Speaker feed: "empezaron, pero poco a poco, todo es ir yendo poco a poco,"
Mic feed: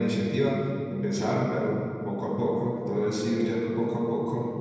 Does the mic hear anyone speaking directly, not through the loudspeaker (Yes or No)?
No